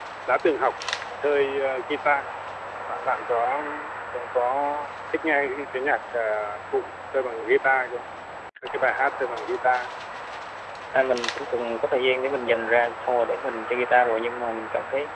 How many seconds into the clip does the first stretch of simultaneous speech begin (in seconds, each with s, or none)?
none